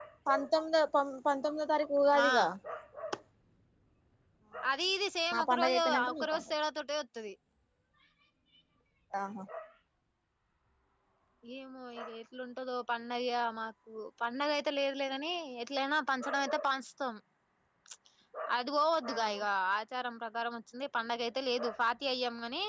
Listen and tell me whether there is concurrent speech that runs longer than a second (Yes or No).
Yes